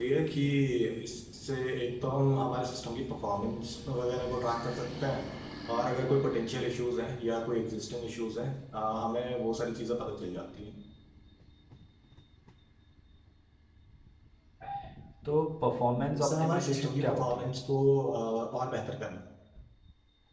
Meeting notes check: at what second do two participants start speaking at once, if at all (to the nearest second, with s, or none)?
16 s